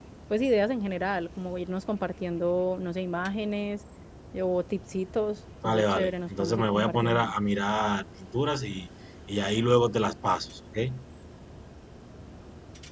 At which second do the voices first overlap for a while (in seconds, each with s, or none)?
5.6 s